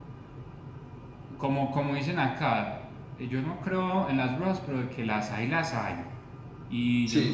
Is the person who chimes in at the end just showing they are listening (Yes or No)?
Yes